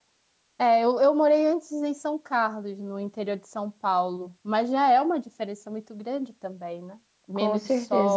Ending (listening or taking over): listening